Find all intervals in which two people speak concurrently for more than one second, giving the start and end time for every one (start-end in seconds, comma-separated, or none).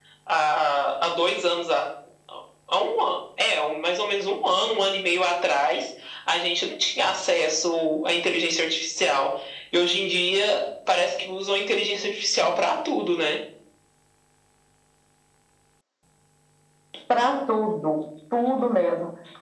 none